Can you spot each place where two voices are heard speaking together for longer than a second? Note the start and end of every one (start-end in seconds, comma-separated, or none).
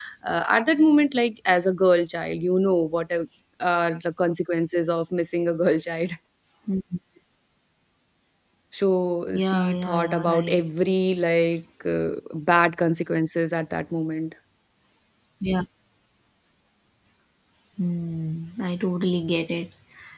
9.3-10.6